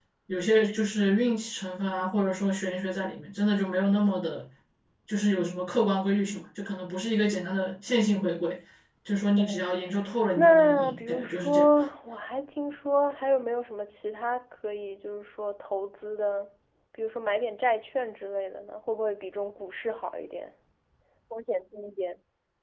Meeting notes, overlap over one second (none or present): present